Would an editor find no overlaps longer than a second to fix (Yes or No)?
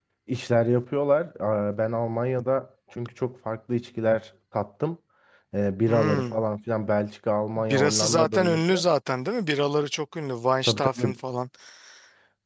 No